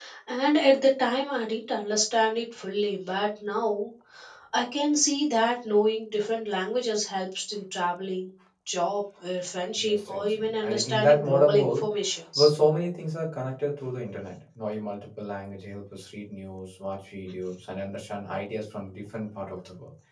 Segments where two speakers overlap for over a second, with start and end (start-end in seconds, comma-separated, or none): 9.8-11.9